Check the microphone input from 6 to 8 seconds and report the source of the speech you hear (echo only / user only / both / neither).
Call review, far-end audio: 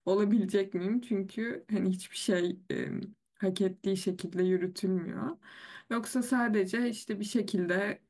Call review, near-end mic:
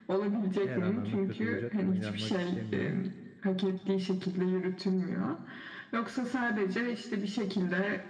echo only